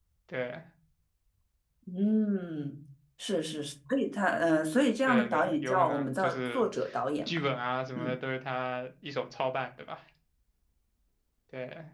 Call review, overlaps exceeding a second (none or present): present